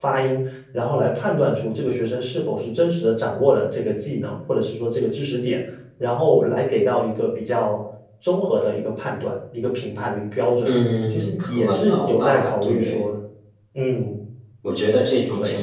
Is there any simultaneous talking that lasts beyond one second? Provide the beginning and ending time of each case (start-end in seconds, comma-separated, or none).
11.1-12.9